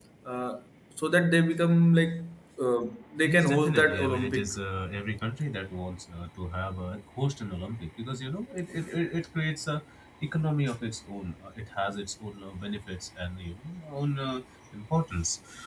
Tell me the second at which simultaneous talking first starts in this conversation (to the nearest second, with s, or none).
3 s